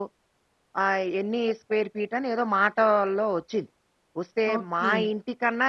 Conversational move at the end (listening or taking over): listening